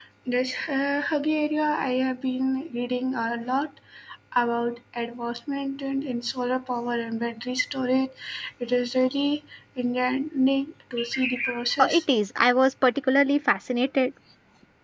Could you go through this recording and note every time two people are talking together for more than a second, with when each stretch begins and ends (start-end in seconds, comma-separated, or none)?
none